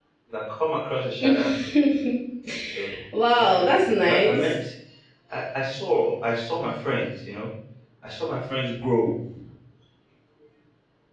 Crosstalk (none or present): present